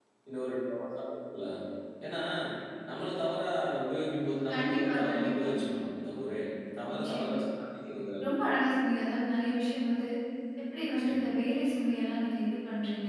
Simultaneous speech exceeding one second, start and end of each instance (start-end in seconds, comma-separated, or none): 4.5-5.7